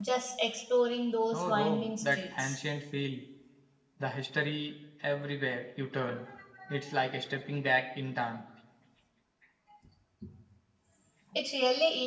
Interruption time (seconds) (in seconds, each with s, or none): 1.3 s